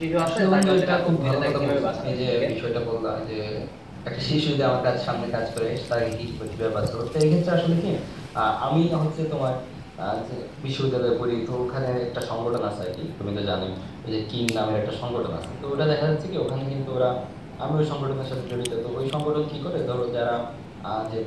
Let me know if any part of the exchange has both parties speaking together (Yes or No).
Yes